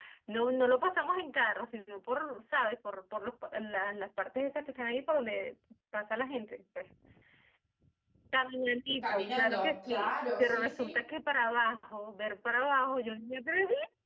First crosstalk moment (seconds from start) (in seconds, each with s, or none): 9.0 s